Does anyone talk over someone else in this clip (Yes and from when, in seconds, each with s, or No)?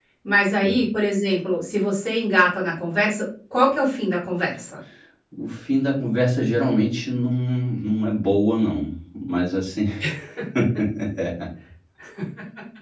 No